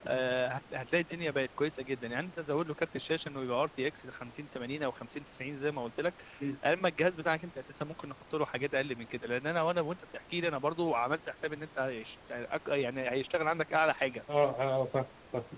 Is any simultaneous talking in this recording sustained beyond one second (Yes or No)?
No